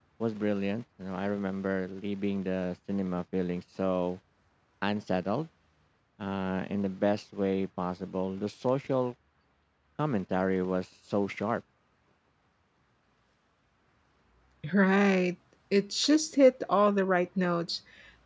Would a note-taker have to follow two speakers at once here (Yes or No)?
No